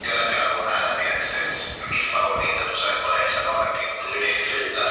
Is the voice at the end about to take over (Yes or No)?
No